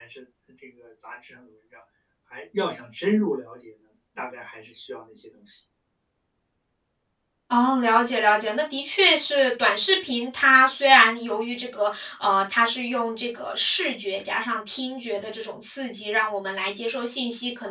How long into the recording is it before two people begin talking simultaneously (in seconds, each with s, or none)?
none